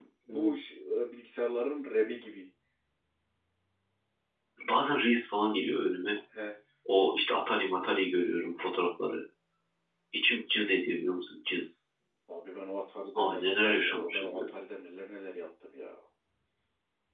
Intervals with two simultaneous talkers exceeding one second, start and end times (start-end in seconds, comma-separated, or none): 13.2-14.4